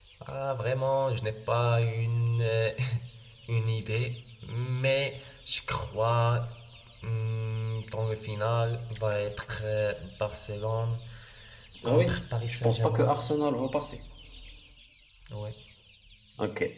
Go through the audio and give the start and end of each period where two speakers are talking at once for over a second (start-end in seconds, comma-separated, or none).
11.8-13.2